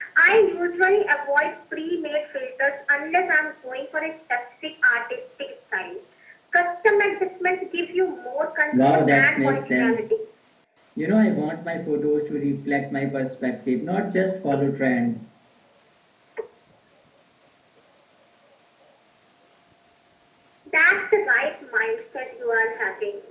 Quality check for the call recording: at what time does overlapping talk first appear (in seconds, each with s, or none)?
8.7 s